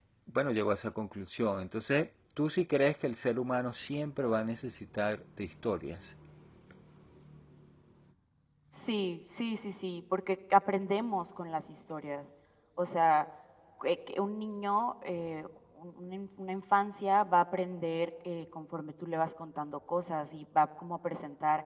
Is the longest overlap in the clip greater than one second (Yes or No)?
No